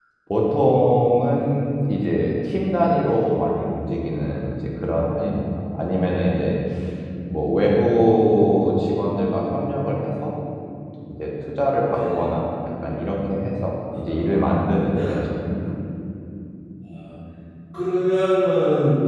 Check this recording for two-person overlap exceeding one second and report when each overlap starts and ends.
none

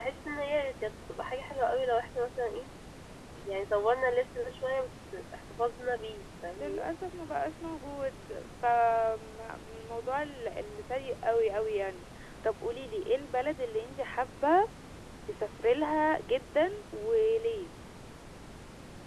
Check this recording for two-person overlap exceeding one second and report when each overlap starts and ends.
none

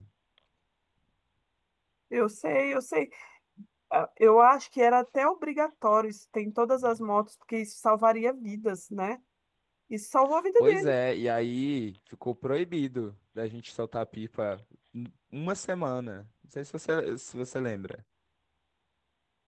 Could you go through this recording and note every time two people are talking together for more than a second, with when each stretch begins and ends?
none

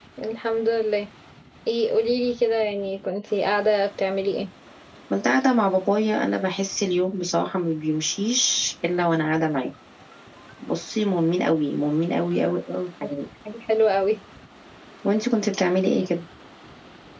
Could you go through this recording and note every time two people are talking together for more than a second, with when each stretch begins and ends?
none

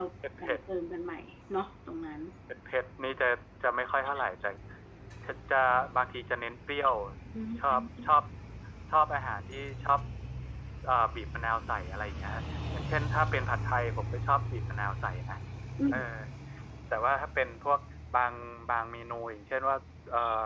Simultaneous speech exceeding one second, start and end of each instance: none

